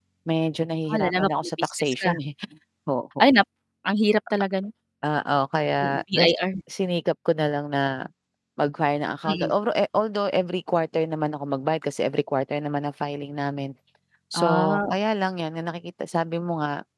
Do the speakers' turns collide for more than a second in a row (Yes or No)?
Yes